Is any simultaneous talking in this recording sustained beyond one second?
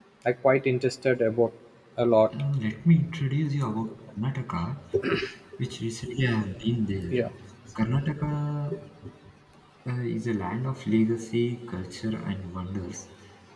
No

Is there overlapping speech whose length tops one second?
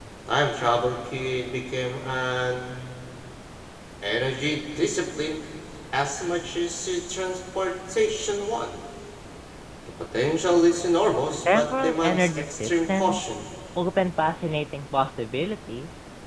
Yes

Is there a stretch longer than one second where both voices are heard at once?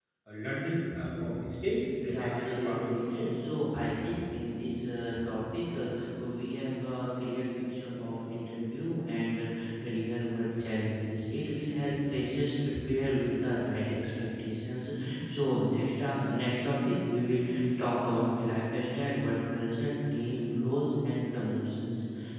Yes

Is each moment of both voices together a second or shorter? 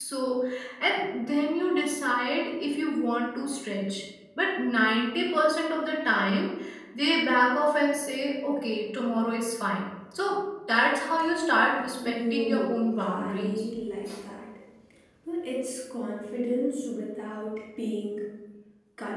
No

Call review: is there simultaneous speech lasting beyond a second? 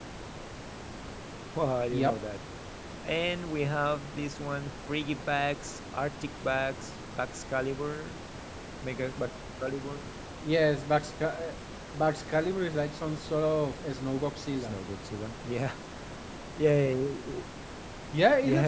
No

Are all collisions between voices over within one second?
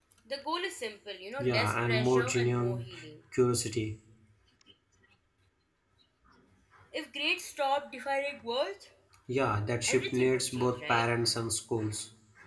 No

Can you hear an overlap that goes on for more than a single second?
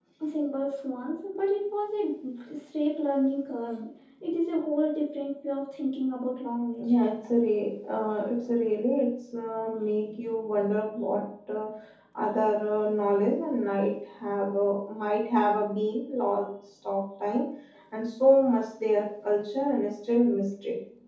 No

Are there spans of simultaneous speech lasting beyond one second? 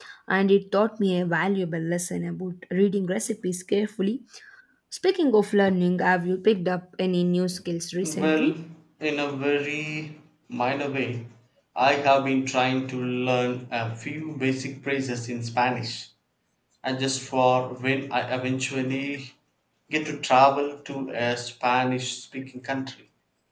No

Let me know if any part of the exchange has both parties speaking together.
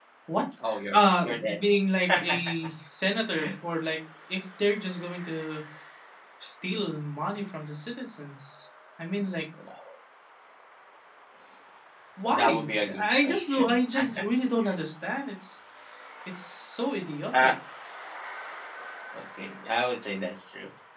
Yes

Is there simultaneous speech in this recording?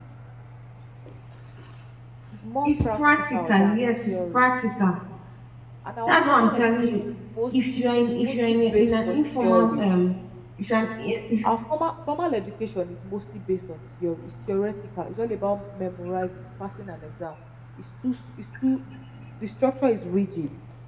Yes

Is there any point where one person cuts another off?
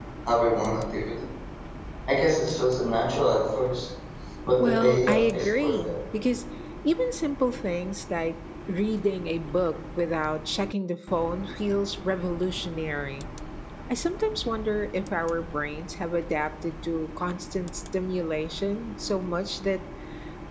Yes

